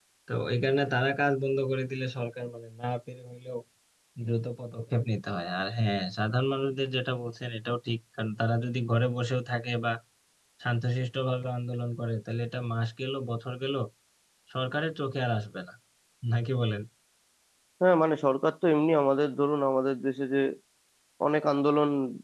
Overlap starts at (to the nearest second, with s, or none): none